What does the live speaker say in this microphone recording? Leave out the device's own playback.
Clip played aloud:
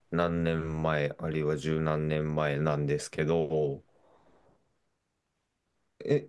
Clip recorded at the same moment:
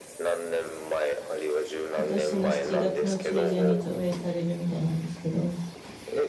今年の7月の中旬に上映されるみたいなんですけど、

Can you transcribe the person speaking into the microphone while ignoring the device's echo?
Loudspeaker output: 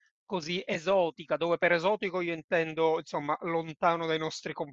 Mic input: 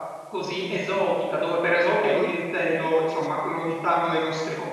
Ok, Ok, ci sono.

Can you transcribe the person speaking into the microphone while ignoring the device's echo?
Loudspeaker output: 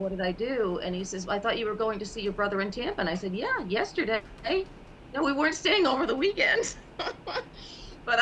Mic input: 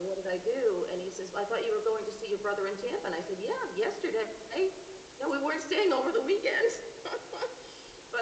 none

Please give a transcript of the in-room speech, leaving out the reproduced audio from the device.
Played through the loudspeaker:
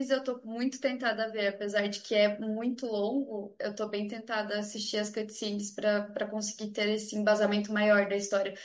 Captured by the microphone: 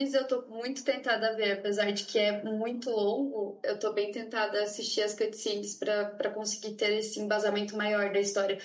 none

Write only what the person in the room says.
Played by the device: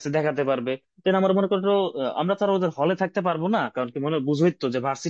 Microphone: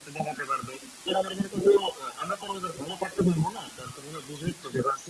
none

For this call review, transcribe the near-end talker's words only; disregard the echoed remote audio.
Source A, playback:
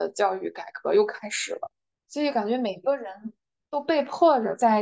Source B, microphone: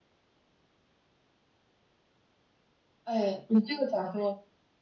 哎，你这个角度

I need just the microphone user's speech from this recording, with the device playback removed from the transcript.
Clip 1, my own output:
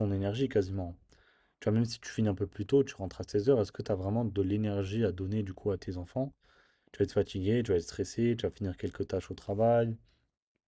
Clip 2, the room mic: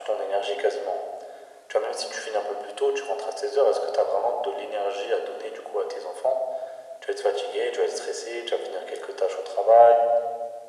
none

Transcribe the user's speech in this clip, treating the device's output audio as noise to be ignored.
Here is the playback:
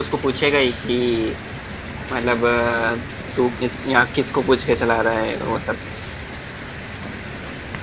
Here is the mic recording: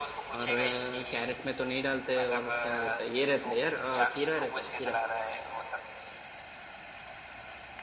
और अ, कैरेट में तो नहीं डालते और क्या रहता है ये रहता है यार अ, खीरा रहता है खीरा

